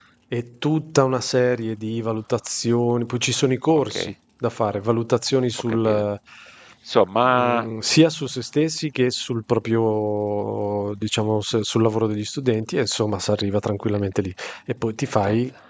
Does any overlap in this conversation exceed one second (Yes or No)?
No